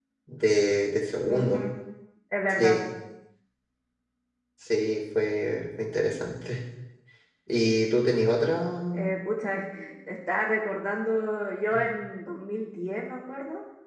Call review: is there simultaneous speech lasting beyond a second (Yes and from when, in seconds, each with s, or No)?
No